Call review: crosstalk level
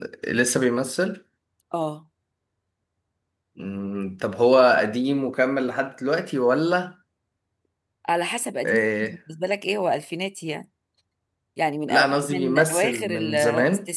present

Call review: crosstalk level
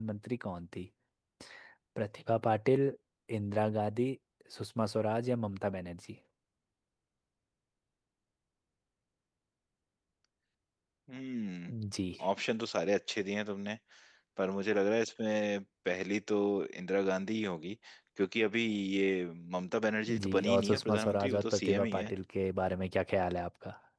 present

